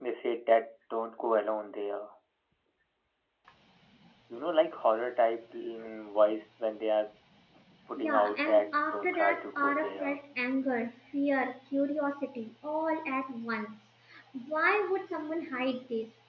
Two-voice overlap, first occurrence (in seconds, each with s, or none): 8.0 s